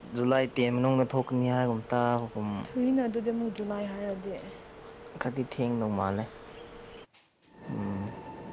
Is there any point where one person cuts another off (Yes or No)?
No